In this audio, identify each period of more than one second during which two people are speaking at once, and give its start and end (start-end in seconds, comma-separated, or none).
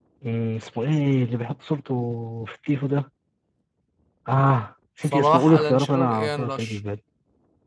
5.0-6.8